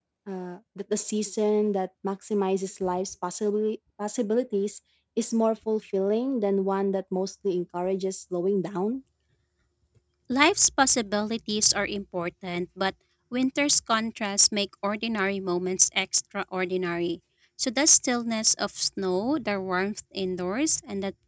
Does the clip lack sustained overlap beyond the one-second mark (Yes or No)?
Yes